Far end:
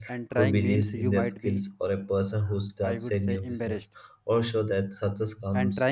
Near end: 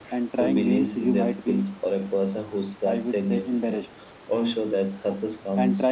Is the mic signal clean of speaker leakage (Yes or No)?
No